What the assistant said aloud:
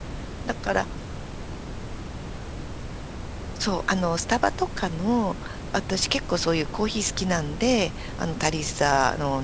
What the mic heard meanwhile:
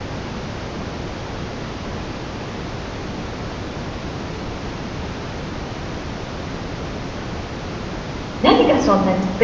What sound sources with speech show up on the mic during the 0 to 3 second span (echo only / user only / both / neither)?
neither